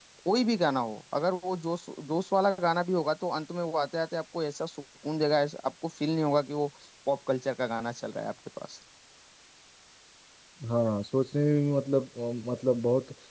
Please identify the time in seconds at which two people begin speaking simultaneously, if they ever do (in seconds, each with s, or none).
none